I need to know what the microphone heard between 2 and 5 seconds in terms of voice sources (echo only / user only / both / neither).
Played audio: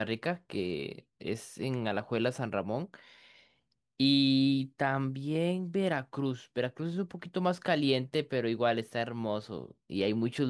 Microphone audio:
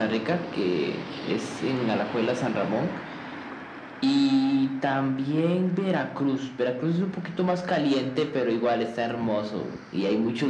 echo only